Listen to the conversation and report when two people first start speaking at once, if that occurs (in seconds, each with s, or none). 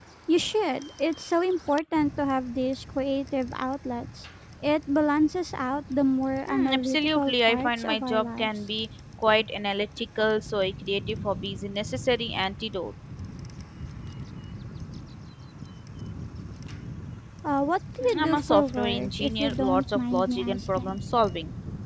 6.5 s